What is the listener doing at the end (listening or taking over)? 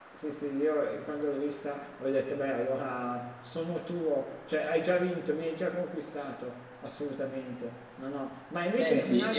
listening